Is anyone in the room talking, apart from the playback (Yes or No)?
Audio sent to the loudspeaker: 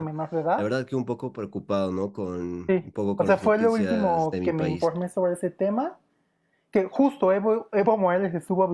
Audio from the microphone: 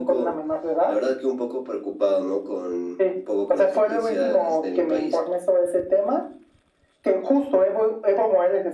No